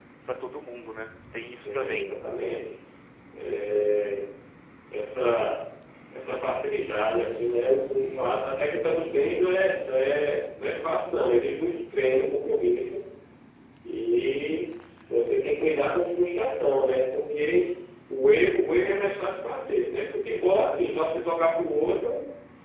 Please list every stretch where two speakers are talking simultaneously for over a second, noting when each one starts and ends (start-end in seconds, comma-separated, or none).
none